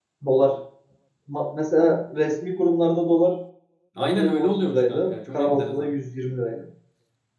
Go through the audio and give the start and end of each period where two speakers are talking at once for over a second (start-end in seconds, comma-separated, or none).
4.0-5.9